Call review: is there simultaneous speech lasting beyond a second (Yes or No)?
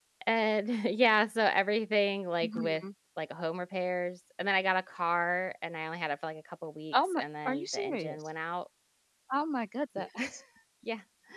Yes